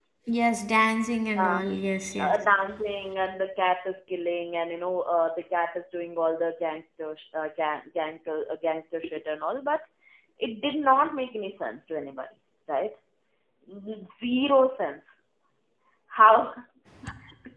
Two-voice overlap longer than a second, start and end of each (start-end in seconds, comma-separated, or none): none